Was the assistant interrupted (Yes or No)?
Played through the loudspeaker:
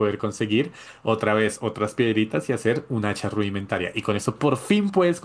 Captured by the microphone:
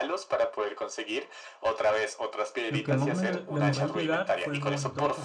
Yes